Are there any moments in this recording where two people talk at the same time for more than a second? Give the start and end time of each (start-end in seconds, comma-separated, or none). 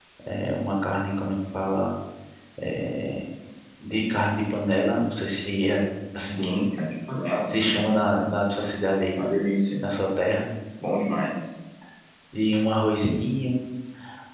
none